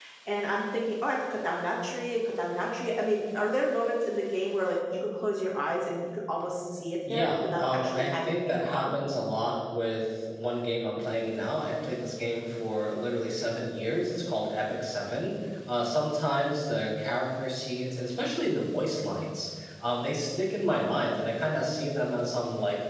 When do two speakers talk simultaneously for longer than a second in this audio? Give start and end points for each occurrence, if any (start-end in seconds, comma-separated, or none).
7.1-8.9